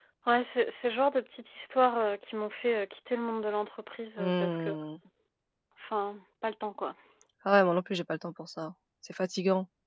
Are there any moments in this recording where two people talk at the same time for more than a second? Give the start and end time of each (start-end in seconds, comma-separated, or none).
none